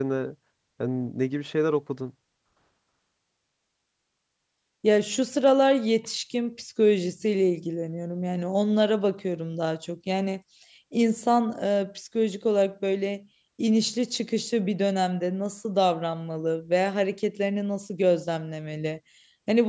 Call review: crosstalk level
none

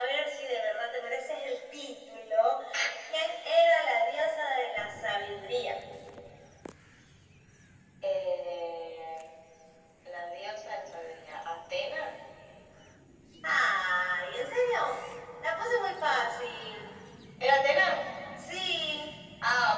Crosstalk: none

